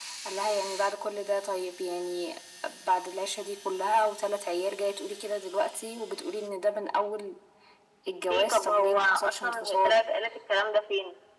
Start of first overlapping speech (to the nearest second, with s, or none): 8 s